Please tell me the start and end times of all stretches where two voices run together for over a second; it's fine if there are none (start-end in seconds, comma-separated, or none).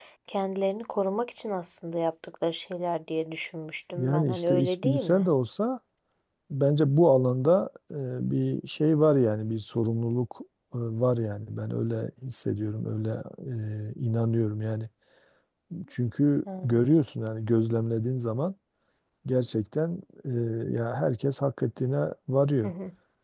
4.0-5.2